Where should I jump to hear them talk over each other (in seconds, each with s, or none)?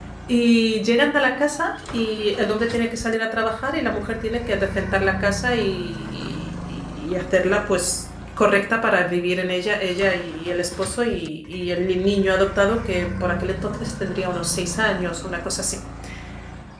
none